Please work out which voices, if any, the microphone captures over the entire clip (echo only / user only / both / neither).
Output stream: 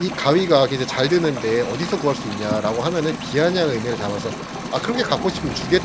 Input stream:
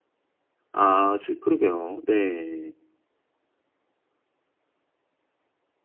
user only